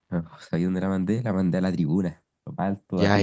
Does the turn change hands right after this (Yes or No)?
Yes